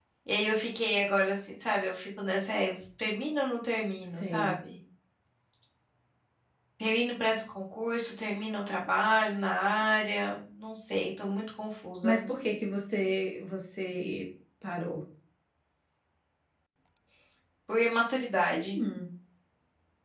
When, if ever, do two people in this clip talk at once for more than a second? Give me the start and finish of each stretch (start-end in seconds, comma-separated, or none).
none